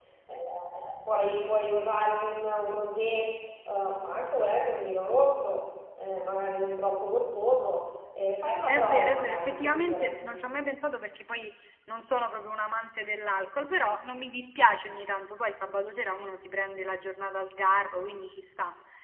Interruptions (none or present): present